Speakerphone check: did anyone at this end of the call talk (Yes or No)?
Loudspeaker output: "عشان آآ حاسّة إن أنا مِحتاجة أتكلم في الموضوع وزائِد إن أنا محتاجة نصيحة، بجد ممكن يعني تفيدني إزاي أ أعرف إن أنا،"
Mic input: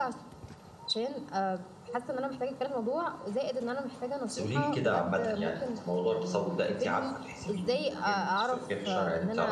Yes